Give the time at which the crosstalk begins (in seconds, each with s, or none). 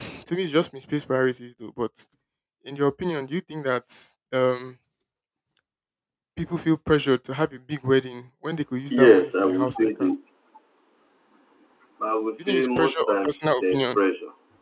8.9 s